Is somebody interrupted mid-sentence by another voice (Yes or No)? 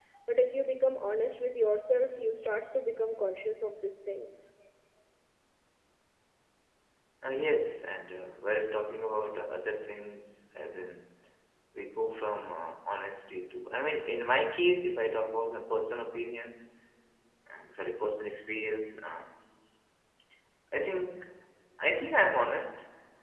No